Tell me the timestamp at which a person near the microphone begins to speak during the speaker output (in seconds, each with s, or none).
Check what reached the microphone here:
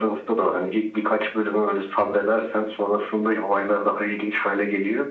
none